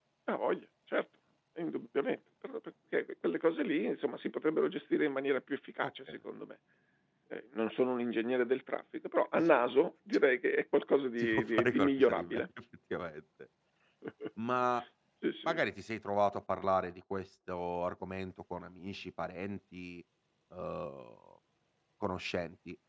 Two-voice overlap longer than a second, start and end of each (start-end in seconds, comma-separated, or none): 11.2-12.4